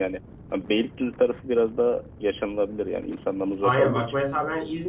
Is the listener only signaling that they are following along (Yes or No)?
No